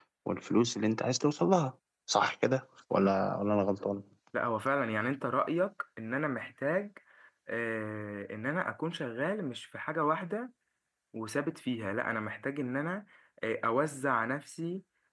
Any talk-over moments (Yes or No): No